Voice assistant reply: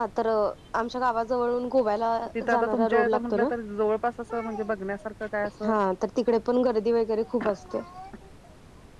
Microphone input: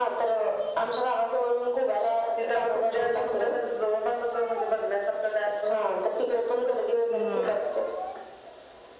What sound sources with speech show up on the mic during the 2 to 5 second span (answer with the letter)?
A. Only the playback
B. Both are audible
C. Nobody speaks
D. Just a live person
A